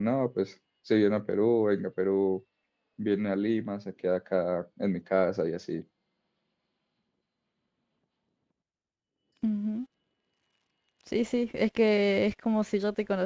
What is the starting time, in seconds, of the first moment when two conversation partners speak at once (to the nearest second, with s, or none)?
none